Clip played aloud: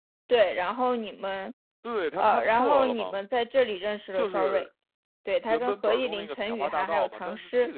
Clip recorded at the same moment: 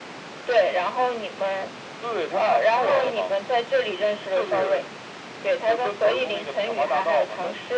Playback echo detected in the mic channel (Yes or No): Yes